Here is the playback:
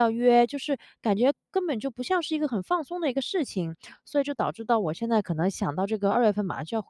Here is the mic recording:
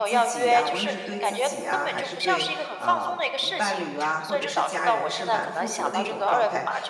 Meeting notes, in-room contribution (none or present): present